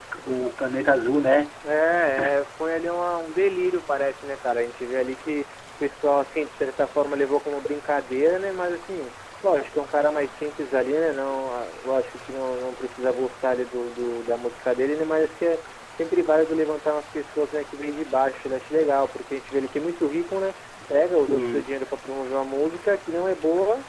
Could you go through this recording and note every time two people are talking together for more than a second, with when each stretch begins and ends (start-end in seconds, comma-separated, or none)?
none